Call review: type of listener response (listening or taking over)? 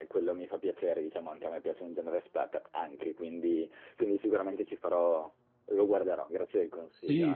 taking over